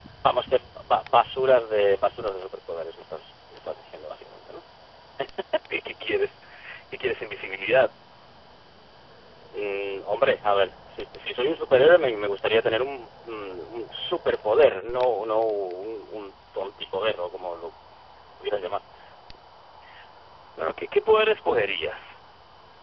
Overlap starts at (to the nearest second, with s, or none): none